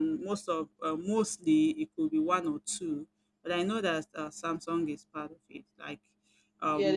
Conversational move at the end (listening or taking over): taking over